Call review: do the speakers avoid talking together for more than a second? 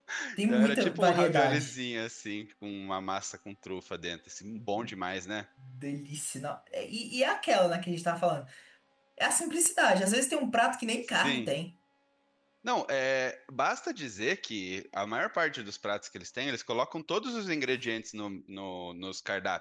No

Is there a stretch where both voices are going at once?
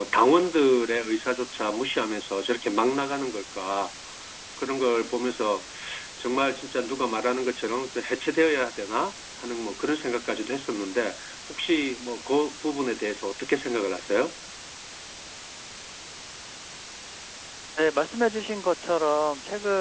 No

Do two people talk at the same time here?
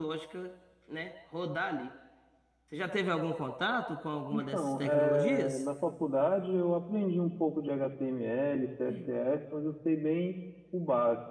Yes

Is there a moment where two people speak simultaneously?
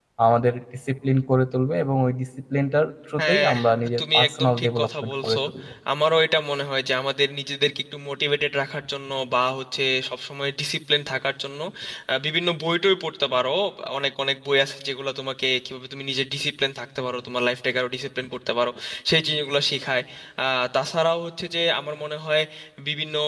Yes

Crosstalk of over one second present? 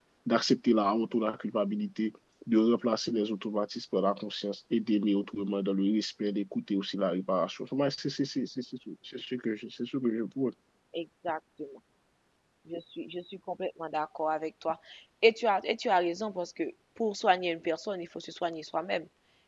No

